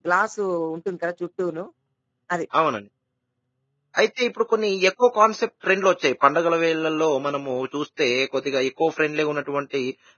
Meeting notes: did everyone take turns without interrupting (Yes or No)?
Yes